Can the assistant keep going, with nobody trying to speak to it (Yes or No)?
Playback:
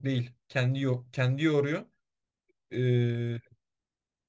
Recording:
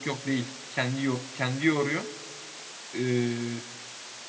Yes